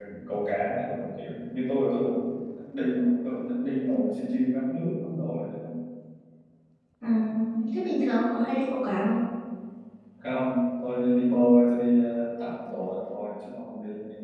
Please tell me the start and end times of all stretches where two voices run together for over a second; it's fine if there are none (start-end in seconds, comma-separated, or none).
none